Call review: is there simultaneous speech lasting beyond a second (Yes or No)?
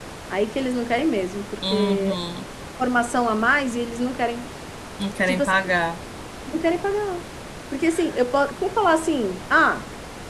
No